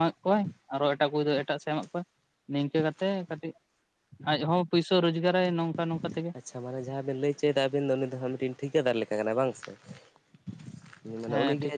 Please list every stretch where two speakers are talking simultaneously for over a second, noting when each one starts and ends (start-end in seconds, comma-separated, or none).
none